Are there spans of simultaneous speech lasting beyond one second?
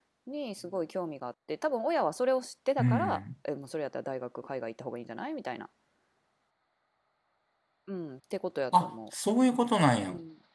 No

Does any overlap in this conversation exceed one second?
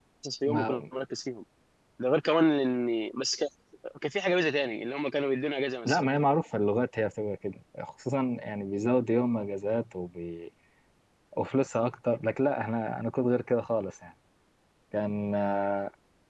No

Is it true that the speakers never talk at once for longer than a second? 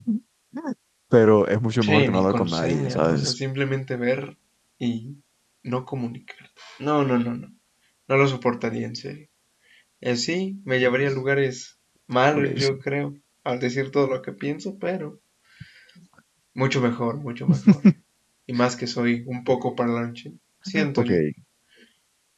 No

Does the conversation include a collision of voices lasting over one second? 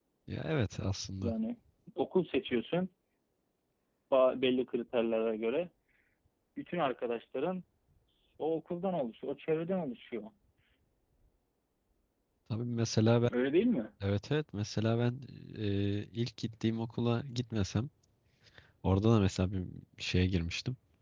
No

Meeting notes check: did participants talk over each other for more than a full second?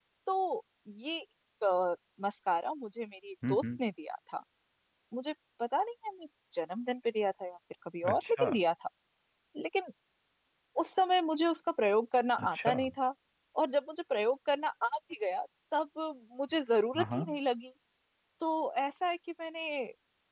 No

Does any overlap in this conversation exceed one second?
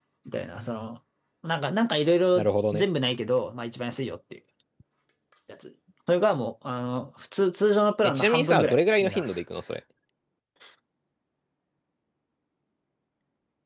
Yes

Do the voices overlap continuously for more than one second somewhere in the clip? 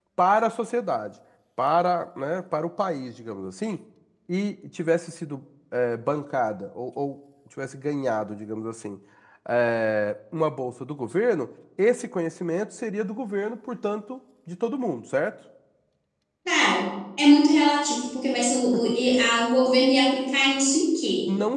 No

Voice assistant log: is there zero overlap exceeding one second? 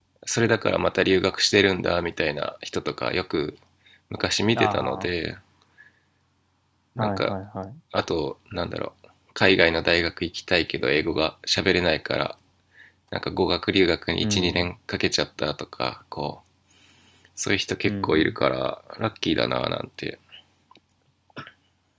Yes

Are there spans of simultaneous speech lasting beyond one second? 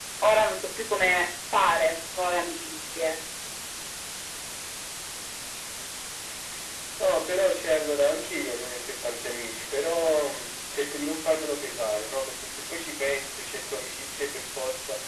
No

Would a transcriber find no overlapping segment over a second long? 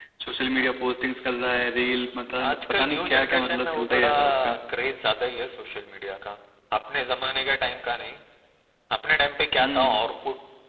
No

